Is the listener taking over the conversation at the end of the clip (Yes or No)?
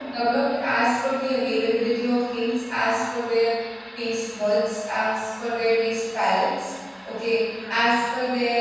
No